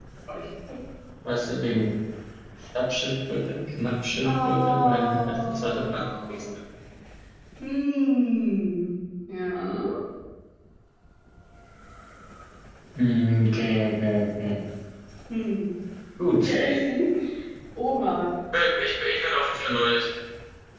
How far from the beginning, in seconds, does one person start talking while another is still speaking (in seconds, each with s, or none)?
4.2 s